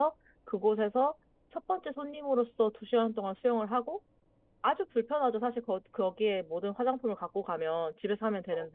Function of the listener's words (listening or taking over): listening